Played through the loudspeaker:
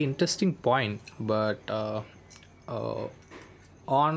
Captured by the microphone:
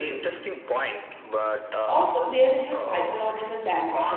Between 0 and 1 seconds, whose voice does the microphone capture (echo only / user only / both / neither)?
echo only